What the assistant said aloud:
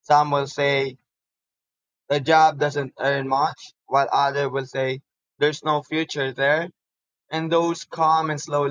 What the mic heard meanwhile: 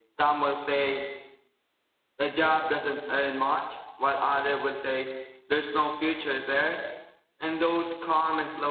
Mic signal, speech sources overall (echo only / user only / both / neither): echo only